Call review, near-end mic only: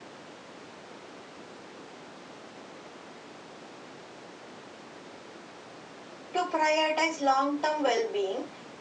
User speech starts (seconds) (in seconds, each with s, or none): 6.3 s